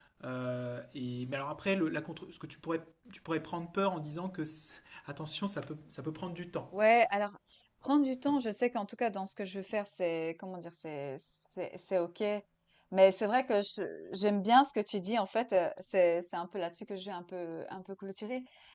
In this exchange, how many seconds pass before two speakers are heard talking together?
none

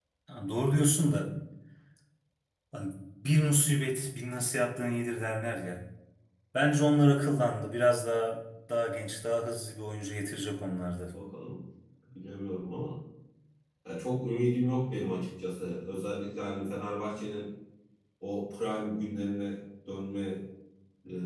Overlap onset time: none

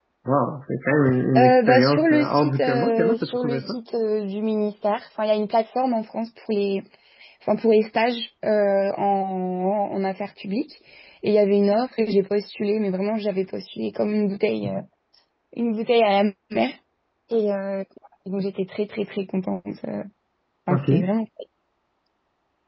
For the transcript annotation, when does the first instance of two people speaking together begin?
1.4 s

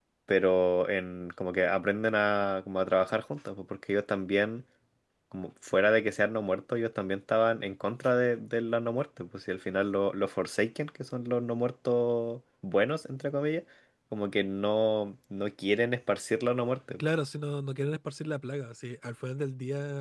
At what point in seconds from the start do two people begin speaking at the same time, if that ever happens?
none

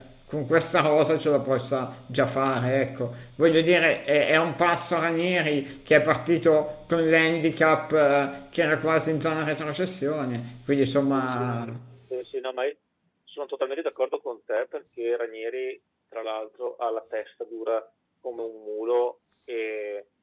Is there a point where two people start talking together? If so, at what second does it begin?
none

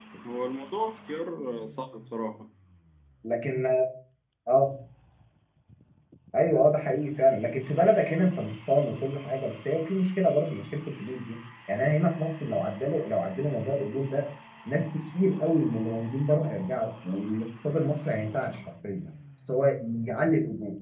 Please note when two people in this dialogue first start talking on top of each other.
none

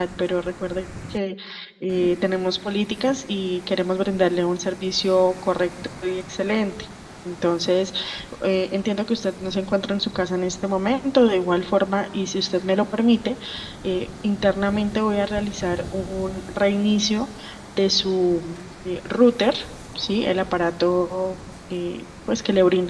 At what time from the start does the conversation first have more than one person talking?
none

